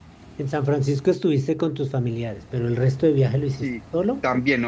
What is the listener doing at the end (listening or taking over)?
taking over